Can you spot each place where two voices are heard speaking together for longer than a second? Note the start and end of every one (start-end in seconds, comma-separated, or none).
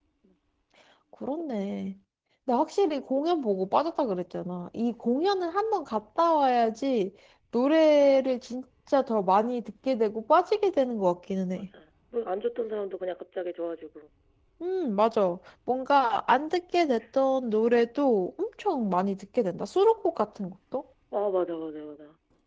none